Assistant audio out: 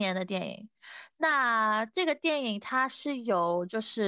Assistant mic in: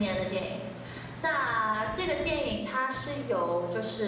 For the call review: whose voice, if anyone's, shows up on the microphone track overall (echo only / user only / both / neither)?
echo only